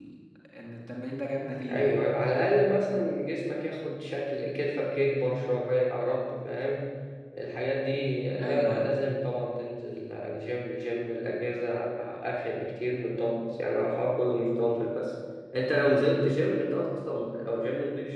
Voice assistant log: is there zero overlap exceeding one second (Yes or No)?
Yes